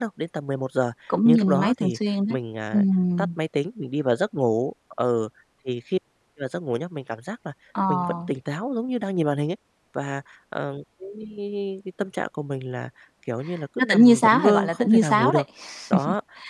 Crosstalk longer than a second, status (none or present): present